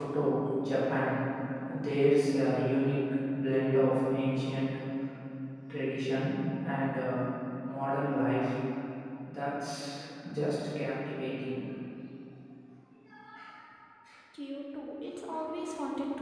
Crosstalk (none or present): none